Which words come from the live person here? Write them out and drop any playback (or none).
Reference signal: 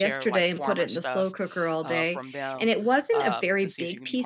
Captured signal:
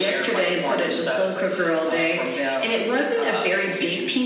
none